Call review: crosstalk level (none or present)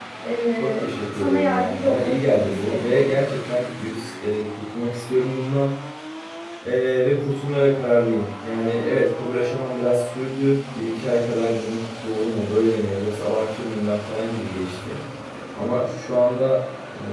present